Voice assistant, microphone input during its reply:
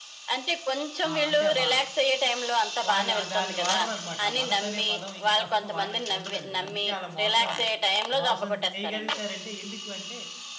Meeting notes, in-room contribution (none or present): present